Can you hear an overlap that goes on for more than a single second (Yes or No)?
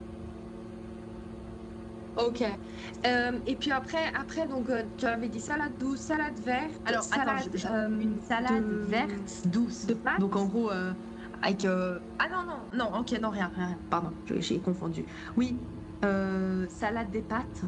Yes